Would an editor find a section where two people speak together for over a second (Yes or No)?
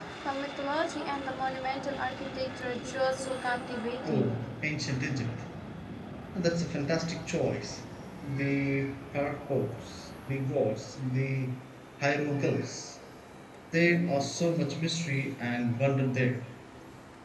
No